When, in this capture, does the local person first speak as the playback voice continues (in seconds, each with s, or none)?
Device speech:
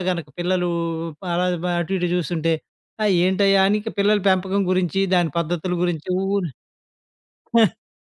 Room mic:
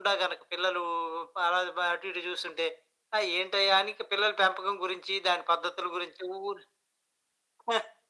none